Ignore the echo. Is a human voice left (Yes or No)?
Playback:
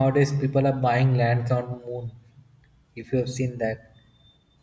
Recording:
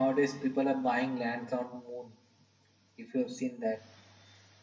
No